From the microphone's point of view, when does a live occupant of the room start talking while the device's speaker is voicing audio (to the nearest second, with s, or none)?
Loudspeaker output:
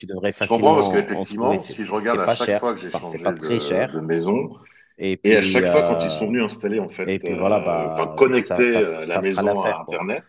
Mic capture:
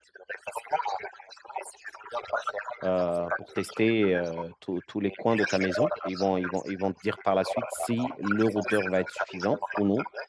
3 s